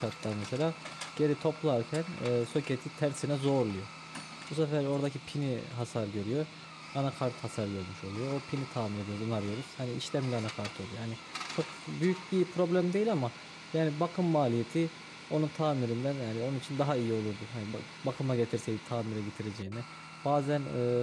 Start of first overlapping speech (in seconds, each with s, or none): none